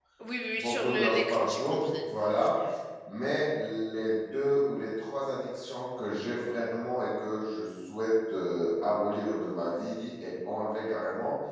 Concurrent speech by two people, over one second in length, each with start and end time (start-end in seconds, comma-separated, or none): 0.6-2.0